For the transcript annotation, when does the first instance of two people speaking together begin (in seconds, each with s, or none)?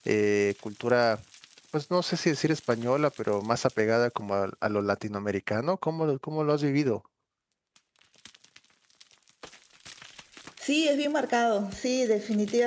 none